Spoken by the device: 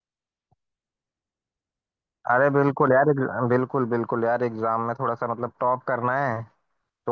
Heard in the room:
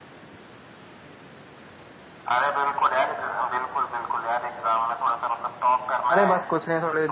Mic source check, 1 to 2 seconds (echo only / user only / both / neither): neither